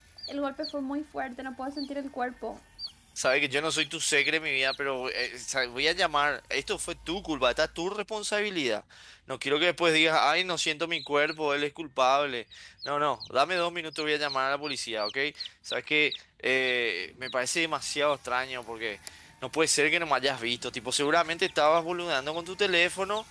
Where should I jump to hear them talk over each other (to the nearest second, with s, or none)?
none